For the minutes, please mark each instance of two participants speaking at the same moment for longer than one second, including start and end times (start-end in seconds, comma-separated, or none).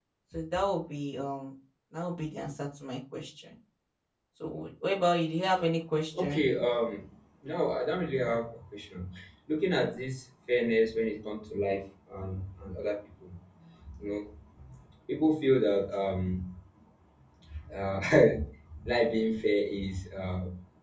none